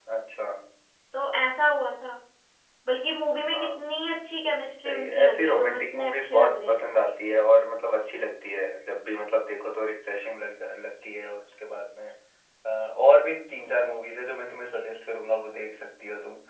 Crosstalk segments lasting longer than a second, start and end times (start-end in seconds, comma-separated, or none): 4.8-7.0